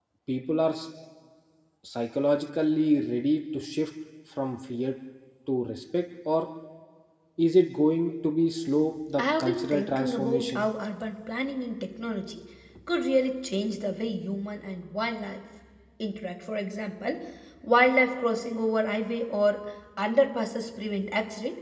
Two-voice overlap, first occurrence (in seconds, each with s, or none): 9.2 s